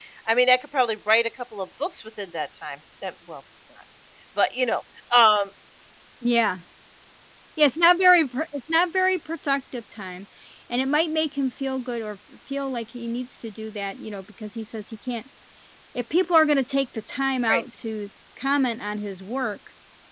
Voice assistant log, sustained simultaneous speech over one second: none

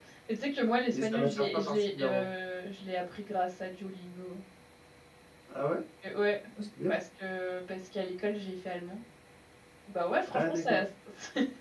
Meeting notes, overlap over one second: present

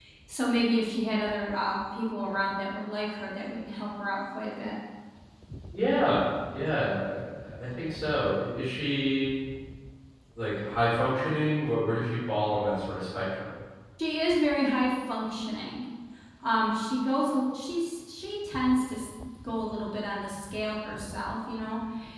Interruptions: none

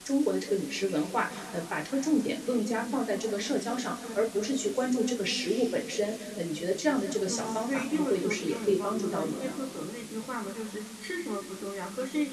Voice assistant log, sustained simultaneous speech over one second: present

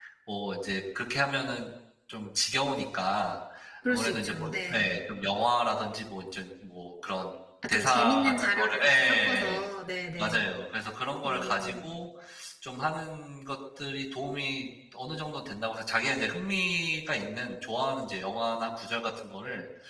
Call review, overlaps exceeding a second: present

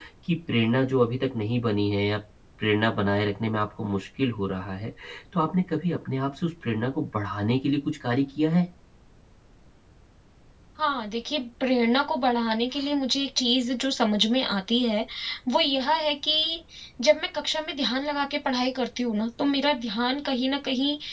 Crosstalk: none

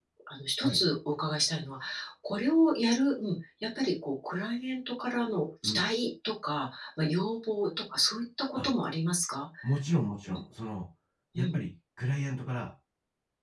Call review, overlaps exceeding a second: none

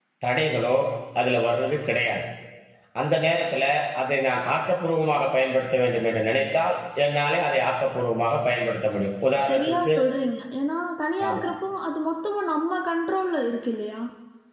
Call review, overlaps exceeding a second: none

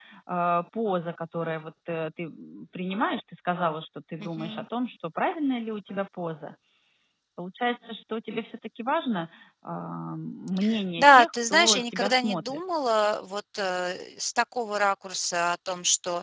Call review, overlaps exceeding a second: present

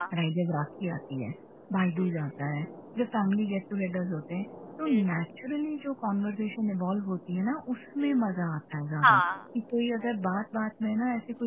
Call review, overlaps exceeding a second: none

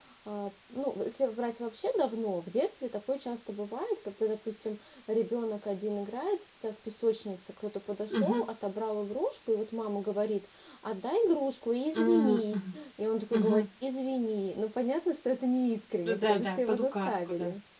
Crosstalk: present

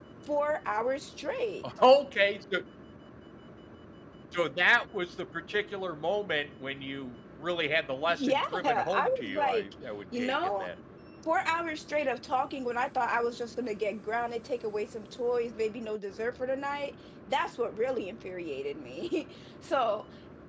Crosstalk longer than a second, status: present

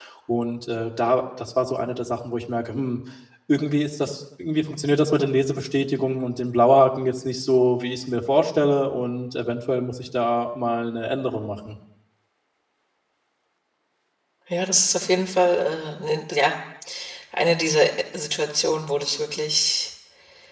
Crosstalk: none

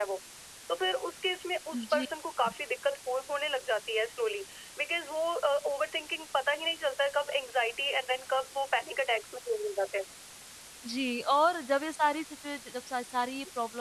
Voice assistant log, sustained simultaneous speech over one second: none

